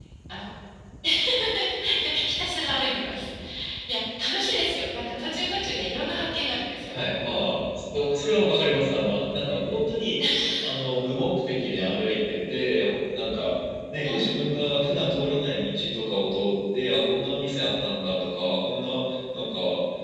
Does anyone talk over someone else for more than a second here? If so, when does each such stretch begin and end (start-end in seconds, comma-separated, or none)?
none